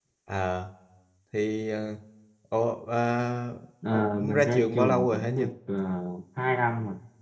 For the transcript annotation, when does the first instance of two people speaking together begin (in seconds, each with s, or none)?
3.9 s